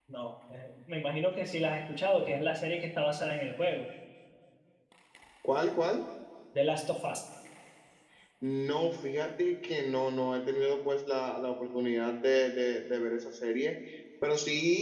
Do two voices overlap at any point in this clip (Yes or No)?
No